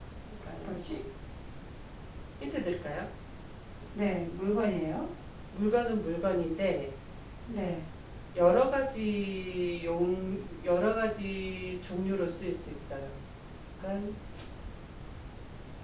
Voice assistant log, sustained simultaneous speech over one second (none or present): none